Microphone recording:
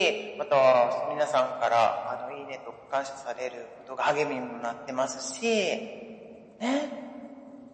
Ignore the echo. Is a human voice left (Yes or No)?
No